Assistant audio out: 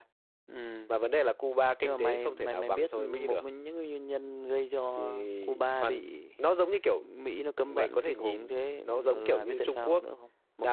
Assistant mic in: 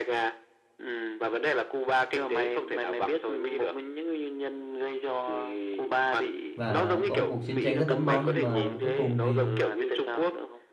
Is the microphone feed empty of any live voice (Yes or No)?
No